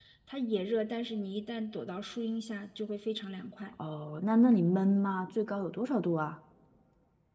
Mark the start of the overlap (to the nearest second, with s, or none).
none